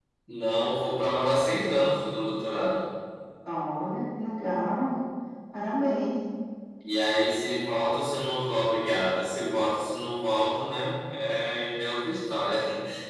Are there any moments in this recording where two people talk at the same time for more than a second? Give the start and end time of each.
none

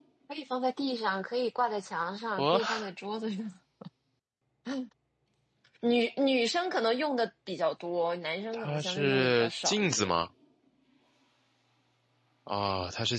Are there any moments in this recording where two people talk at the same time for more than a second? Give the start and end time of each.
8.5-10.1

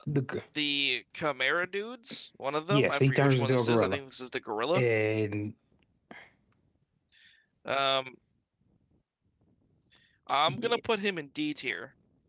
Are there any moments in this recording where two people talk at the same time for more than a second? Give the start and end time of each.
2.7-4.0

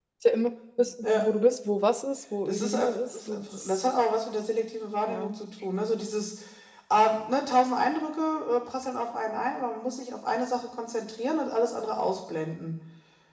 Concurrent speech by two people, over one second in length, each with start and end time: 2.4-3.8

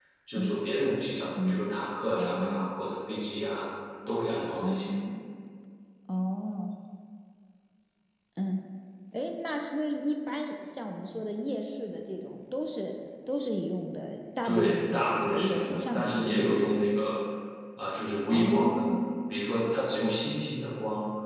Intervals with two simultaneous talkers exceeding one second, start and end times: 14.4-16.8

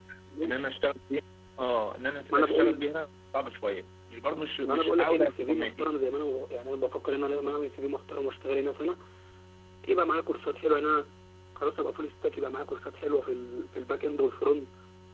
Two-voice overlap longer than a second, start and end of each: 4.6-5.9

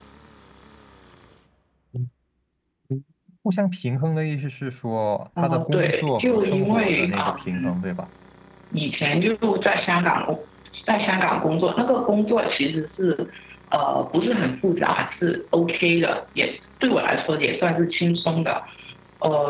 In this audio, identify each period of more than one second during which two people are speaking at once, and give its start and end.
5.4-7.8

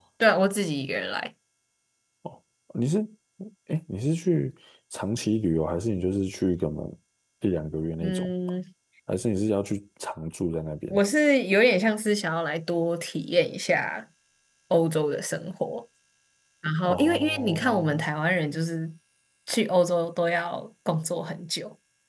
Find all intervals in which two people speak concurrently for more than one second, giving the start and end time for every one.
16.8-18.1

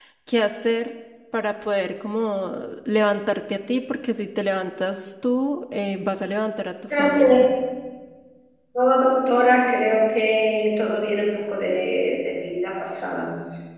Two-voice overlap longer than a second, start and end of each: none

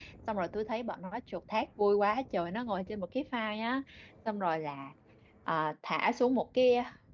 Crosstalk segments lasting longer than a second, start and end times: none

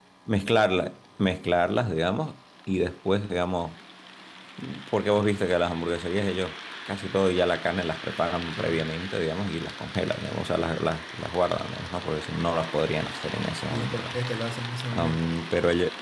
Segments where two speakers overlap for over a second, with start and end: none

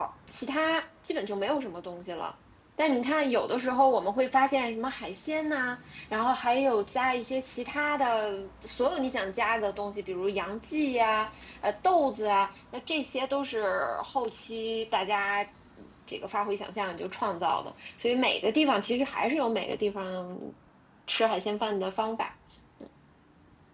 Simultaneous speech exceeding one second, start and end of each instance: none

